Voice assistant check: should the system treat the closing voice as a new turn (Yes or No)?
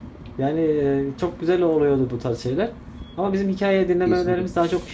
No